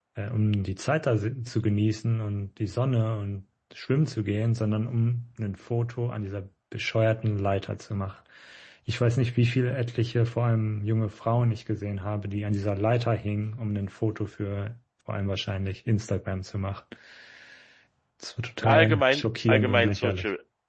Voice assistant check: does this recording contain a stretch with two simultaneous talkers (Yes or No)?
Yes